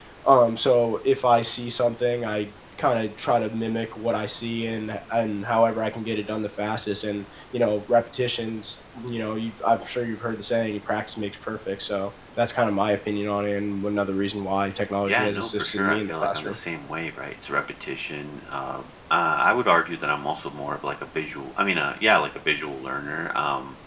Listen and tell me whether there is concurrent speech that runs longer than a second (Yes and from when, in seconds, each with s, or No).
Yes, from 15.1 s